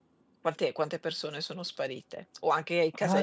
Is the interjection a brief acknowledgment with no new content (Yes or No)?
No